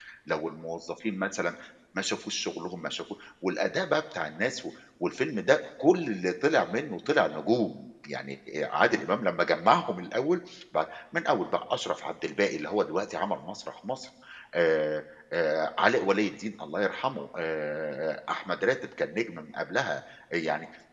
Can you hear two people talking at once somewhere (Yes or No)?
No